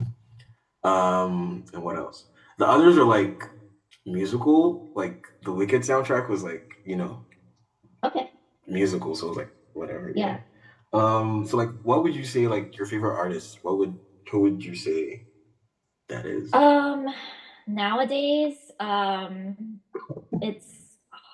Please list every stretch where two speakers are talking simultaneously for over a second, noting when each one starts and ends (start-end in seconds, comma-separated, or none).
none